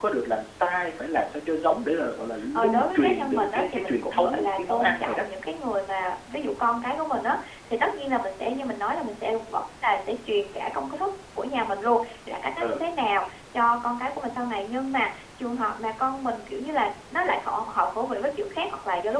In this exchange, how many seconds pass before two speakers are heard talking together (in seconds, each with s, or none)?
2.5 s